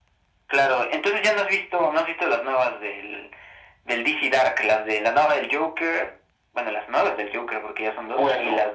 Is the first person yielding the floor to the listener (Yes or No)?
Yes